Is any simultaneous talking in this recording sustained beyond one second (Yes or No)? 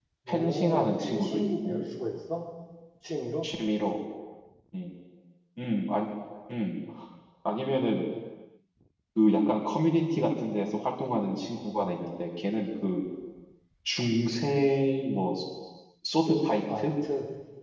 Yes